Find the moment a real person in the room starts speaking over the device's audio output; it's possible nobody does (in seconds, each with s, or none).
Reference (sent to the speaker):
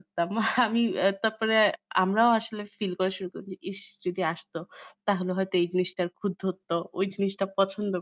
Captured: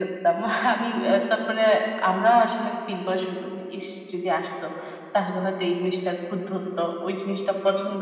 none